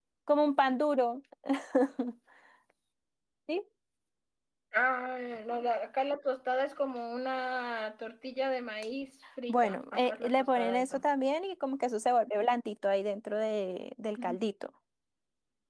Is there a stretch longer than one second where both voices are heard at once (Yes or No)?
Yes